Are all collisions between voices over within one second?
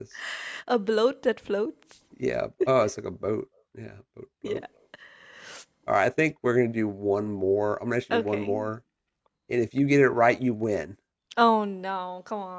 Yes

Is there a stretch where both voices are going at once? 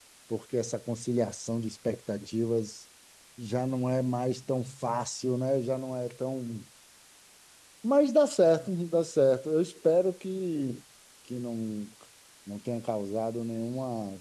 No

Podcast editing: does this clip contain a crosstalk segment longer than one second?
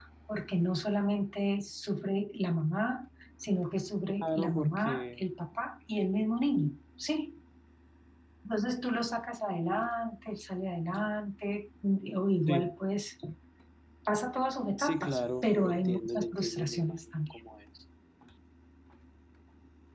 Yes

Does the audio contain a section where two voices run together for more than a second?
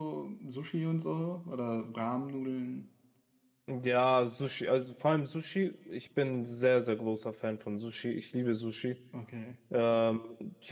No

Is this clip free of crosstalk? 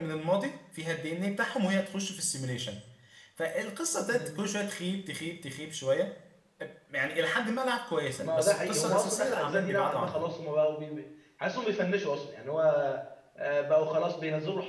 No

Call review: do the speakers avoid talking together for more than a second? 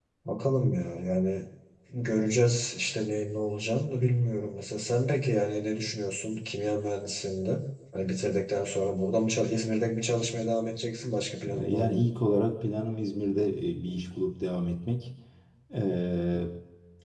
Yes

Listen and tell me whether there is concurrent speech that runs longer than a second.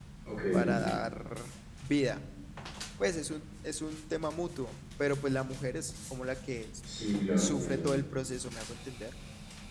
No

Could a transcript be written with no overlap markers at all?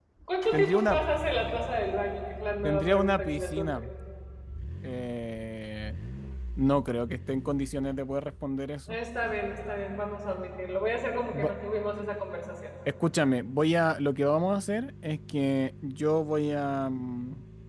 No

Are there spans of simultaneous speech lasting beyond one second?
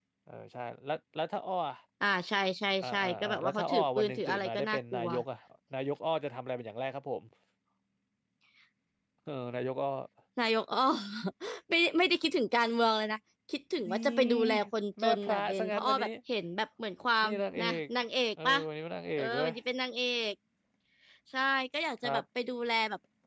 Yes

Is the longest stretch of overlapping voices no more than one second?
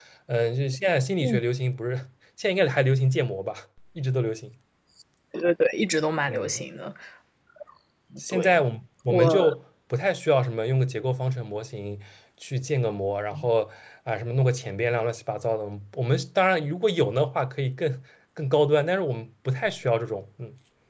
Yes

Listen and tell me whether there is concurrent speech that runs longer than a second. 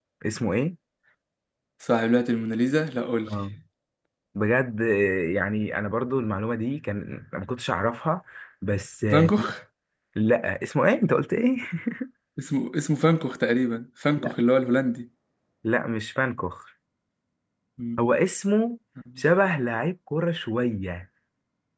No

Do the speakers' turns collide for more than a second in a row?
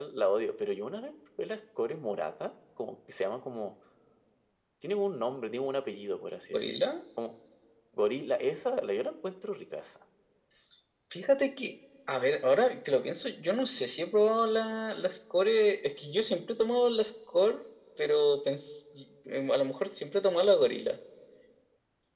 No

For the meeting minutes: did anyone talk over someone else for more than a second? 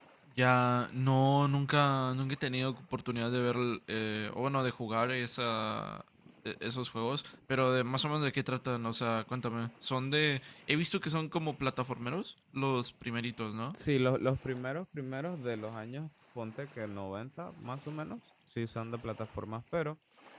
No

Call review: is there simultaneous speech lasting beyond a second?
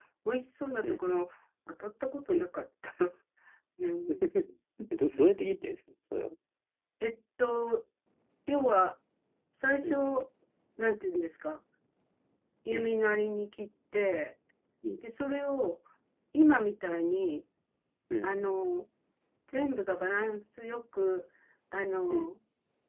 No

